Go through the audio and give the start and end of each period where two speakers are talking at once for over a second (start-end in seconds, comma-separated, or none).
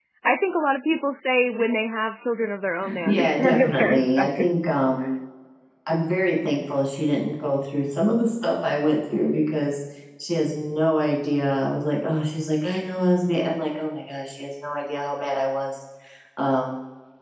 3.0-4.5